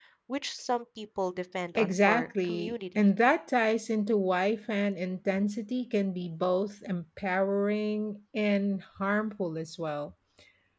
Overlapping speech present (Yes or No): Yes